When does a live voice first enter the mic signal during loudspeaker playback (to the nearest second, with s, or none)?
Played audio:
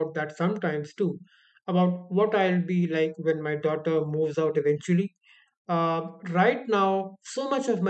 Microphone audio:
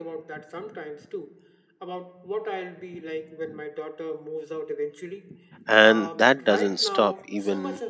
6 s